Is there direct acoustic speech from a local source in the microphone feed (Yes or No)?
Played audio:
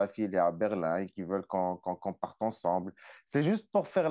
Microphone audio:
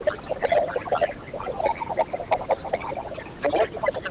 No